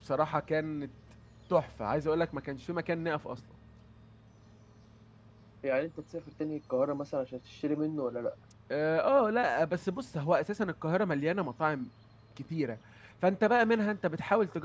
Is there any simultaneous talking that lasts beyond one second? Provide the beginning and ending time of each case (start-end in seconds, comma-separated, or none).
none